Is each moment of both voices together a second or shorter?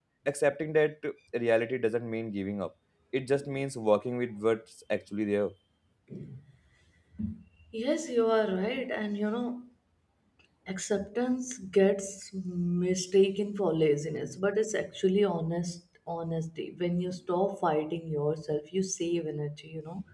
Yes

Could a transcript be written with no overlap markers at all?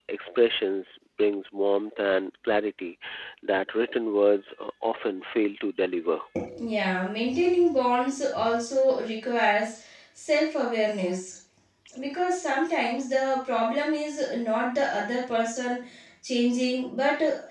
Yes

